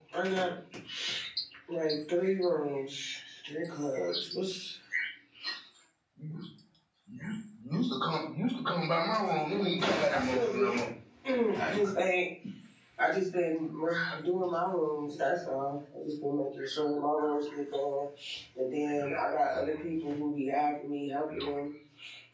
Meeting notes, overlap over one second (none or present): present